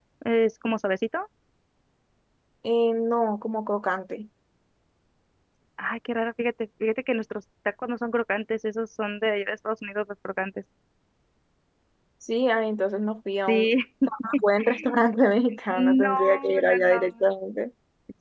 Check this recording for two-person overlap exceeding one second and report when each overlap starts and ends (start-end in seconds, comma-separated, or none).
15.8-17.0